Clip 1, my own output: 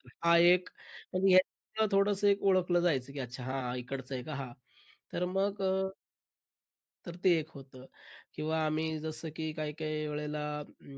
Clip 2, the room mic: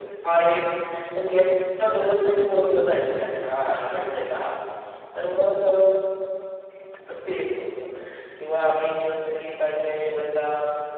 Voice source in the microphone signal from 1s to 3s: echo only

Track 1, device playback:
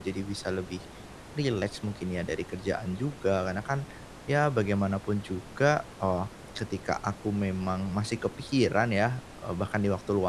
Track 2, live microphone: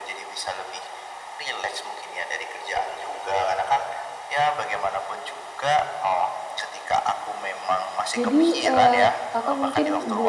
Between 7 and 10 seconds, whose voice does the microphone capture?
both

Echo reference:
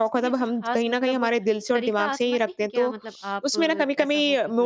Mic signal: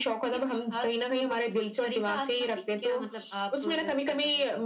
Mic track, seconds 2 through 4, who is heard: echo only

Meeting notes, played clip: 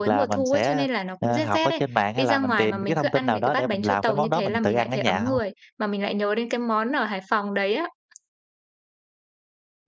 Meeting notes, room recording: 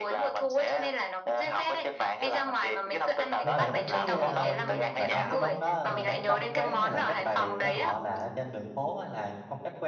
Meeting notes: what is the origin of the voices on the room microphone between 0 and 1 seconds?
echo only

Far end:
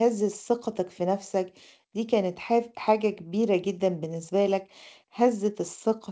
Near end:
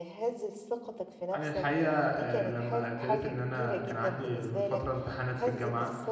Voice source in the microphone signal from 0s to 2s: both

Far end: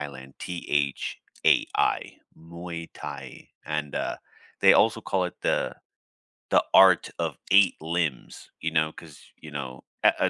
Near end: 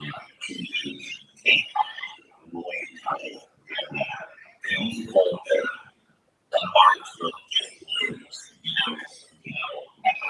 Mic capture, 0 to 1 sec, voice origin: echo only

